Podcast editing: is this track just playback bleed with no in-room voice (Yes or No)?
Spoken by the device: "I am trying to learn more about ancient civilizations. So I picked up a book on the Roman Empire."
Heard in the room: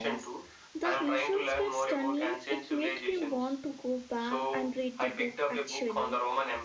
No